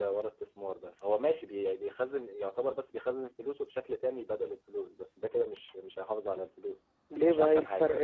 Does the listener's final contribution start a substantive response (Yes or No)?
Yes